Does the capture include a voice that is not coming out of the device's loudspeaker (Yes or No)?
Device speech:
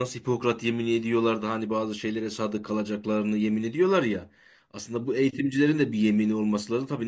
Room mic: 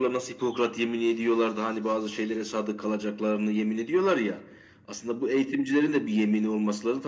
No